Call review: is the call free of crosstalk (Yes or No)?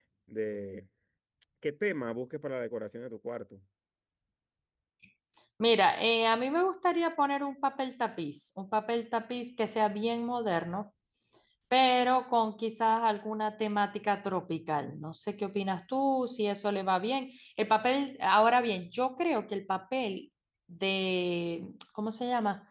Yes